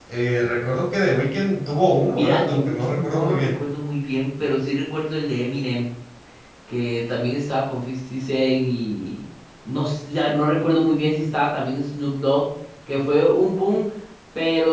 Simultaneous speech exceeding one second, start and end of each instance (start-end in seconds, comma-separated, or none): 2.1-3.6